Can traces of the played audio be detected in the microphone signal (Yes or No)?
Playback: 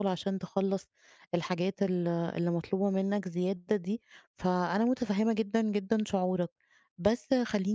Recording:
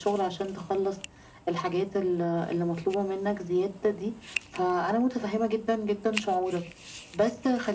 Yes